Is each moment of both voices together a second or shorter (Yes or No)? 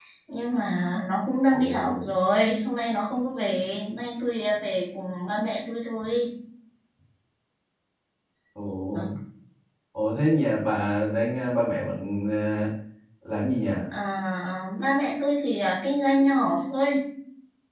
Yes